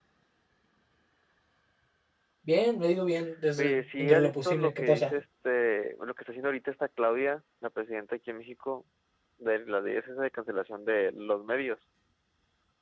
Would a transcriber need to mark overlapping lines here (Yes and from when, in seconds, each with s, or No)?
Yes, from 3.6 s